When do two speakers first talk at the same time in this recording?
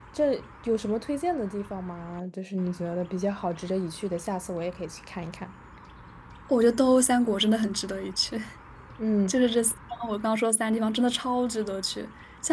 none

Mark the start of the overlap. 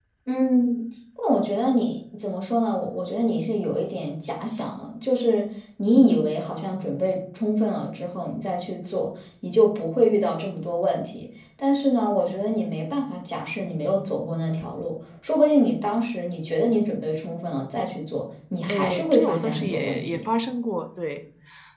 18.7 s

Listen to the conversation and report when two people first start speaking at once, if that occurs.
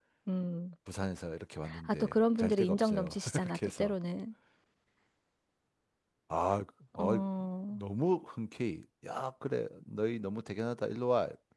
1.6 s

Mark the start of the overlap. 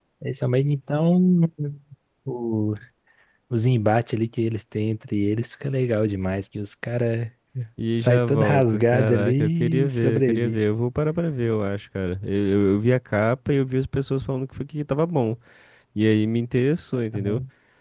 7.9 s

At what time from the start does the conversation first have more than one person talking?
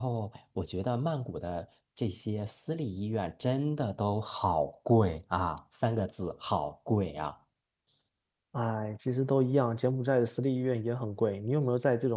none

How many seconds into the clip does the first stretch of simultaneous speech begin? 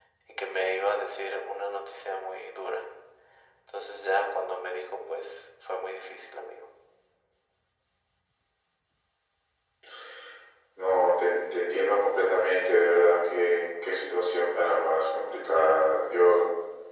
none

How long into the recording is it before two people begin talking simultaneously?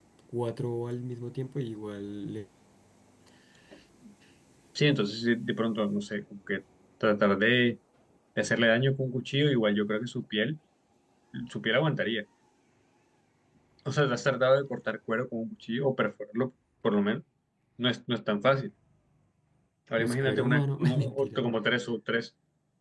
20.0 s

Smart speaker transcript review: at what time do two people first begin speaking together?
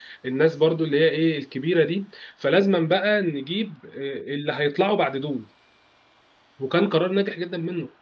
none

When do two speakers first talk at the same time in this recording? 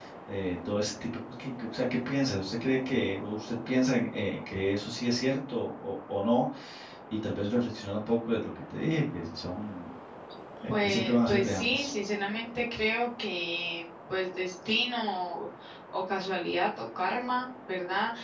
10.7 s

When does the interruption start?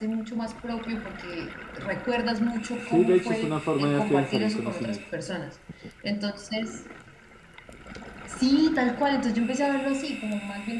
2.8 s

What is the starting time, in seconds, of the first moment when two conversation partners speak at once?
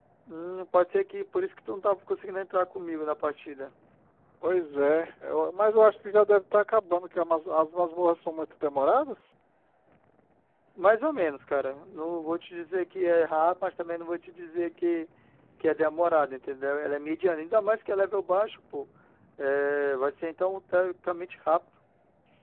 none

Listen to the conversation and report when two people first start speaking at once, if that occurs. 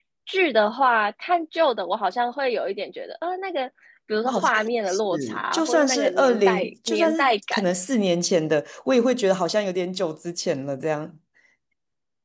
4.2 s

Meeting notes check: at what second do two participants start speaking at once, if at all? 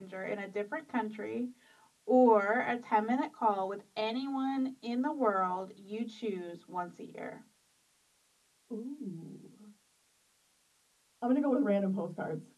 none

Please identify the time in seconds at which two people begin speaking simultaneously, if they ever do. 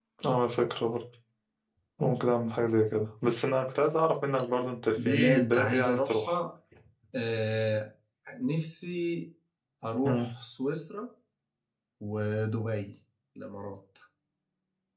5.0 s

